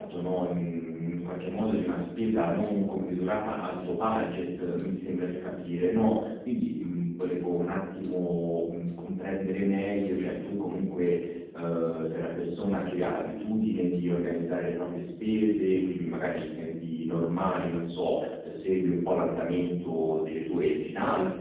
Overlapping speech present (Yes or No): No